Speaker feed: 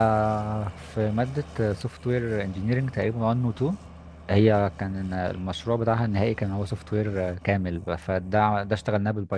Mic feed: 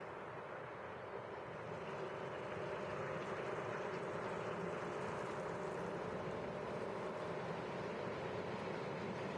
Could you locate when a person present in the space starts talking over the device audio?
none

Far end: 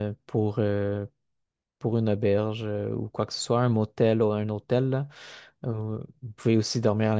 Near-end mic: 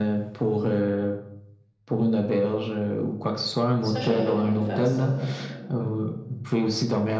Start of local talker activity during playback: 3.8 s

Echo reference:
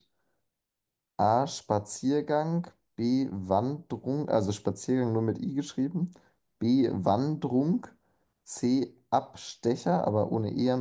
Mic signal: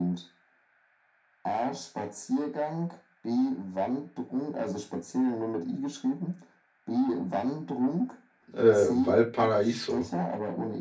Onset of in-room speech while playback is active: 8.5 s

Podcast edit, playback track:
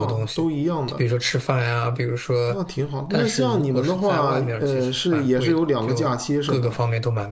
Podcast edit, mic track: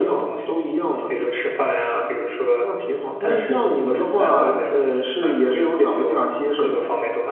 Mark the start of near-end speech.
none

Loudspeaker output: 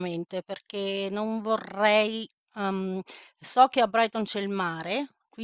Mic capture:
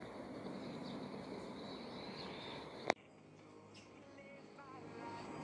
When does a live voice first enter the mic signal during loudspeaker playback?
none

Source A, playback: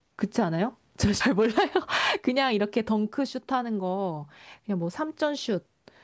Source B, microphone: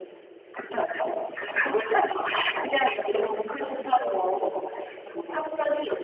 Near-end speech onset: 4.0 s

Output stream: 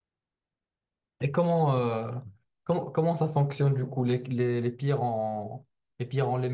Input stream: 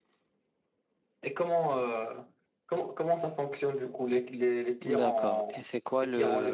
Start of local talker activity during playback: 4.8 s

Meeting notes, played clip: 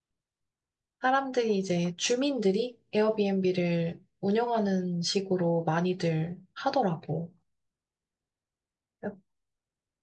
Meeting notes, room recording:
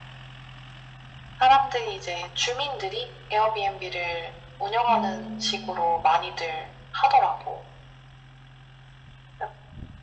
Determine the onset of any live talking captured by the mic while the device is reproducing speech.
4.9 s

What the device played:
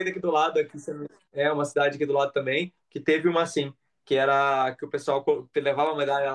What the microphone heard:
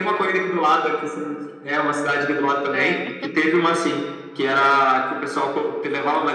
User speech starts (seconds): 2.7 s

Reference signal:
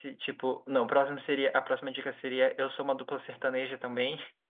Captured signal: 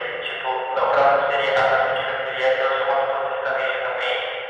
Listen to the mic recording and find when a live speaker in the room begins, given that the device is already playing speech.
none

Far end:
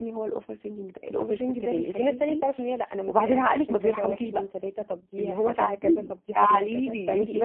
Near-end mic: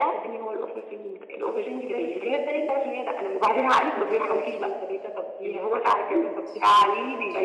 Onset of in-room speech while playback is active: none

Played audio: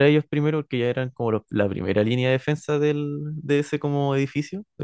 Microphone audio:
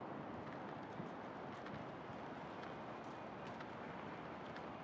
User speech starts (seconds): none

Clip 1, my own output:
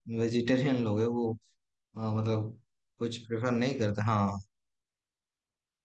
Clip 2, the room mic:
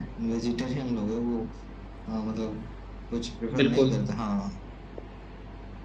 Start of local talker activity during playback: 3.6 s

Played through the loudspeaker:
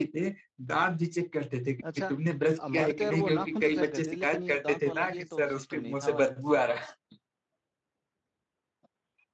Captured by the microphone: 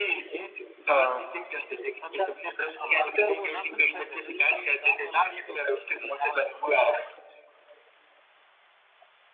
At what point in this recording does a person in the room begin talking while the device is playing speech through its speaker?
0.9 s

